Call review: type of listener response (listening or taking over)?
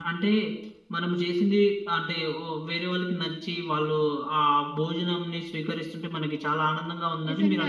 taking over